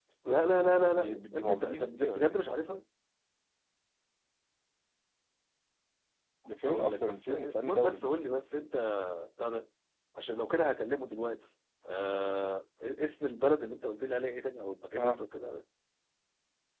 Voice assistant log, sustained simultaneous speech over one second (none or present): present